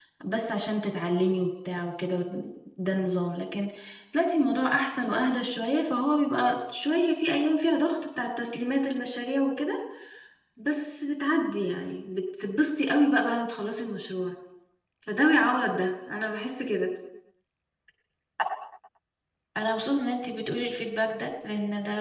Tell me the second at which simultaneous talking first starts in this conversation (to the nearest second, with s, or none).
none